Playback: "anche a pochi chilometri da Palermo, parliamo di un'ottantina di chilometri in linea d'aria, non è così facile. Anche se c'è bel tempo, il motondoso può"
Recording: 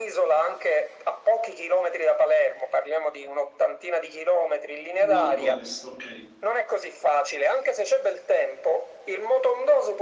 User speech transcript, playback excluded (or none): nord-ovest, ok.